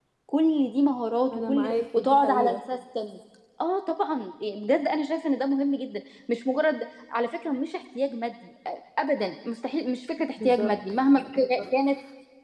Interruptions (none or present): present